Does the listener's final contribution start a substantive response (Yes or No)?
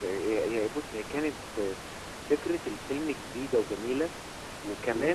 No